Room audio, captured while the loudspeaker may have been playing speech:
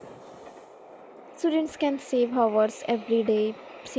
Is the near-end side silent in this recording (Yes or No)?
No